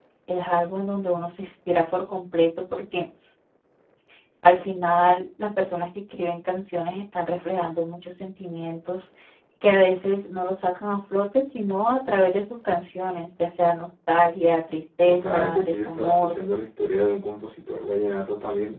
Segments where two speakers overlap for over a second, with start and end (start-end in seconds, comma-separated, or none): 15.1-16.4